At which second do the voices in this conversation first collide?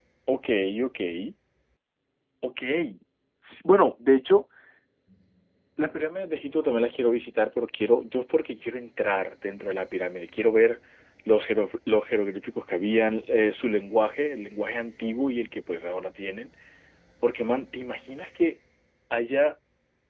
none

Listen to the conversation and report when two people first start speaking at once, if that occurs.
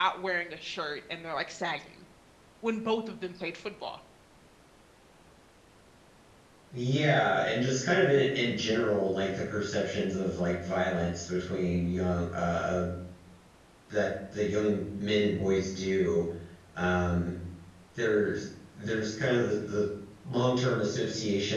none

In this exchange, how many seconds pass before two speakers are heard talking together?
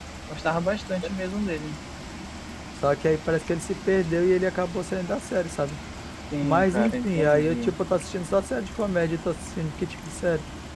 6.4 s

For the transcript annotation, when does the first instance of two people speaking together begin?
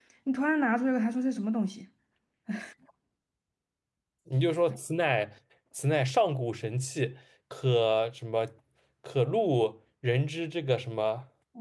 none

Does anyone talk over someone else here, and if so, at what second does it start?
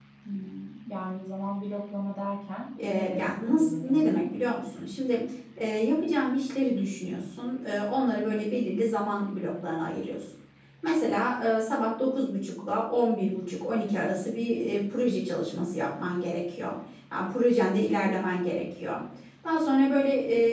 2.8 s

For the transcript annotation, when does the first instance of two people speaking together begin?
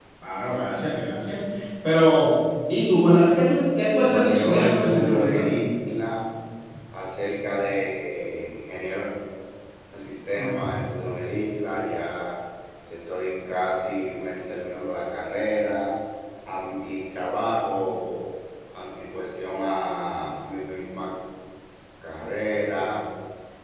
4.1 s

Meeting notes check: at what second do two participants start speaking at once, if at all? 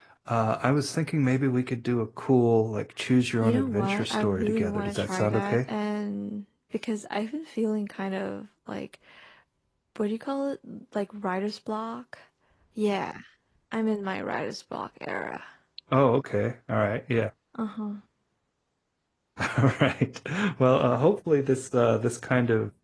3.4 s

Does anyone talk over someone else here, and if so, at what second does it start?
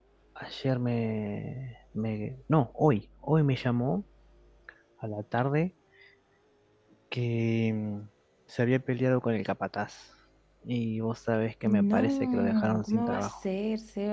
11.7 s

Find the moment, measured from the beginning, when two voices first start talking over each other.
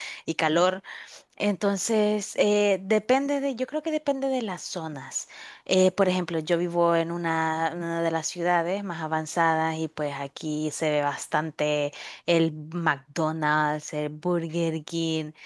none

